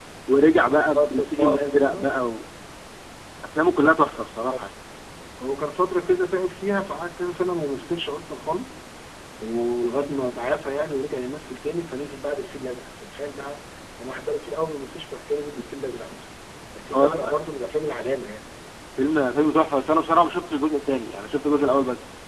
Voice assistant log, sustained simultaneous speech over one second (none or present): present